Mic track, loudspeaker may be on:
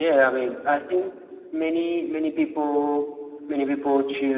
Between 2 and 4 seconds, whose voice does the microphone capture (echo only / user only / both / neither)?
echo only